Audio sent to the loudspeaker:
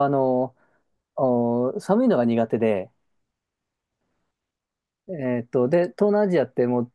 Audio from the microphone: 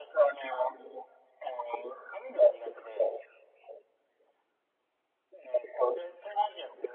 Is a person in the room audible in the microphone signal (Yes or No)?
No